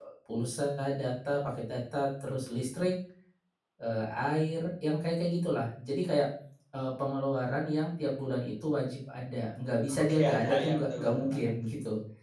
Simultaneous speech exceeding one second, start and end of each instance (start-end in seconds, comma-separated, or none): 10.0-11.5